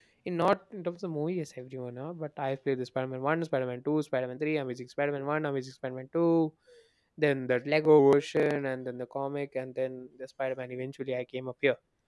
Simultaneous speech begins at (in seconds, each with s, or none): none